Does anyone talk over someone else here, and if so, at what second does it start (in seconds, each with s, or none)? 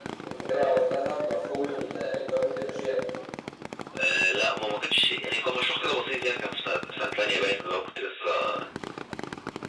none